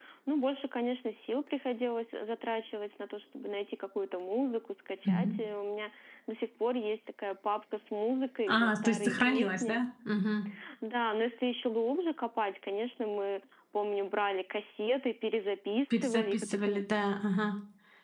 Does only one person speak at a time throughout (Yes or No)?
No